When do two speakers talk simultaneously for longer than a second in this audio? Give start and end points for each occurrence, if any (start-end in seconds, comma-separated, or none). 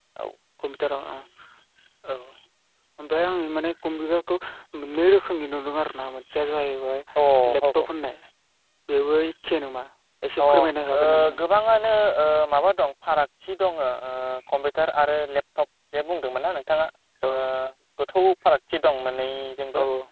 none